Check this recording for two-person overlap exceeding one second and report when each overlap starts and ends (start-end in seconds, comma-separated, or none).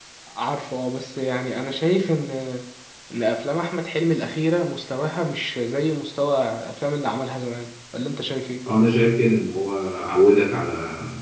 none